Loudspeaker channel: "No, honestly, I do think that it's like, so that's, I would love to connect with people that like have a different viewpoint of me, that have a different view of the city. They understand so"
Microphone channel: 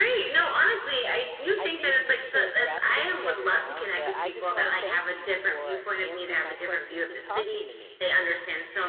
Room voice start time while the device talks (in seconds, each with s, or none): 1.6 s